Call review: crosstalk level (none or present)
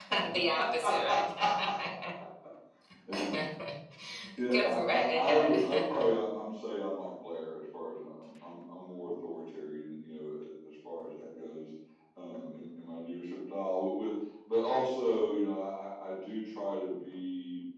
present